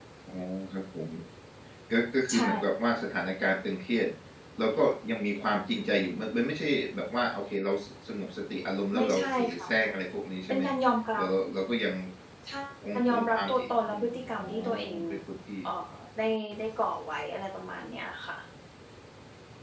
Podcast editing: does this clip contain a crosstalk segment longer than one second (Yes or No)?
Yes